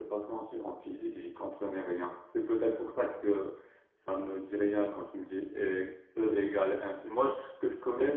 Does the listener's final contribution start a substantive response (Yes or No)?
No